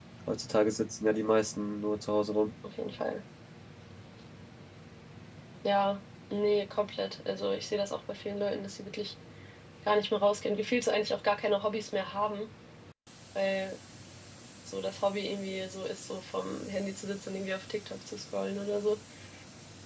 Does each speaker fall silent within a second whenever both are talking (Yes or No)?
Yes